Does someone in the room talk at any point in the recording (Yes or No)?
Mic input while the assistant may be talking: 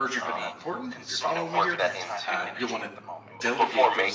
Yes